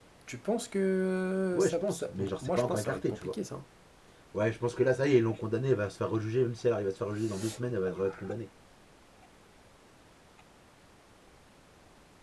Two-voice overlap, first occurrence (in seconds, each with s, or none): 1.5 s